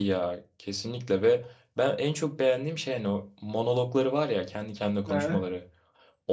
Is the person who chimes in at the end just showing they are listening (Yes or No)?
Yes